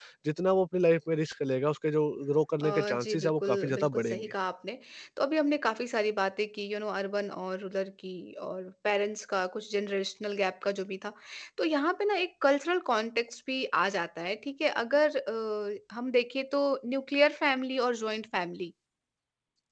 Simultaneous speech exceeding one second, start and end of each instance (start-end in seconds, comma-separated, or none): 2.7-4.3